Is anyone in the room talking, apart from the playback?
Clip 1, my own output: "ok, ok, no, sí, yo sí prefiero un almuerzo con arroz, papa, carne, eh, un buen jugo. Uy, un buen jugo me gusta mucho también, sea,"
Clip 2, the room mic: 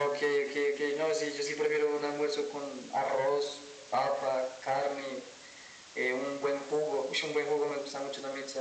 No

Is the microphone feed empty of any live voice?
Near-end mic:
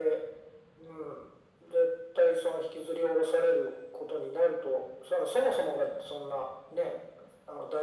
Yes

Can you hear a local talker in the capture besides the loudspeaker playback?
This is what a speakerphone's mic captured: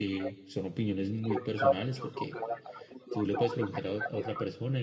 Yes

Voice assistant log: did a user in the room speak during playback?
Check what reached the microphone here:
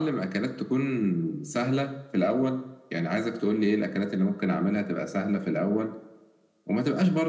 No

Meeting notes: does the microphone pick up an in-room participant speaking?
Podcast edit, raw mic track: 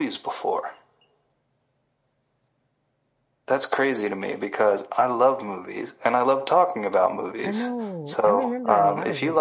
Yes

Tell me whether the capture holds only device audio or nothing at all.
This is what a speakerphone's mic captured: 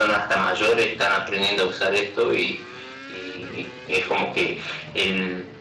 Yes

